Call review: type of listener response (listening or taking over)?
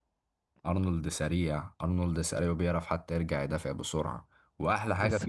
listening